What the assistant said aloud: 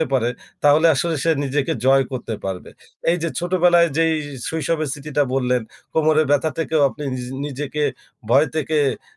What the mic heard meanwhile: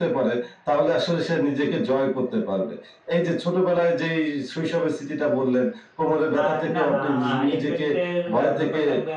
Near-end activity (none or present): present